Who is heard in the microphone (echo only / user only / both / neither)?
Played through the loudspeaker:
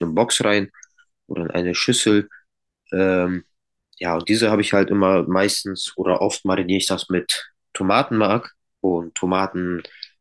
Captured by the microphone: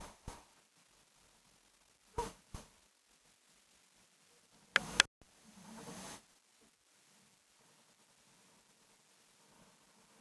neither